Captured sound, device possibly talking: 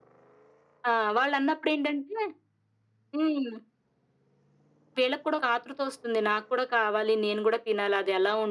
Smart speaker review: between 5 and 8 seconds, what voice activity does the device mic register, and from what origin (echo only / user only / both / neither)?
echo only